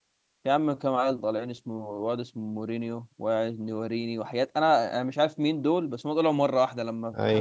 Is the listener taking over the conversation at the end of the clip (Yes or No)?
No